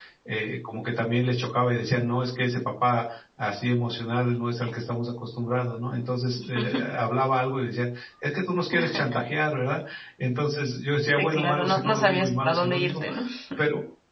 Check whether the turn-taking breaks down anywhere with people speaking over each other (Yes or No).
Yes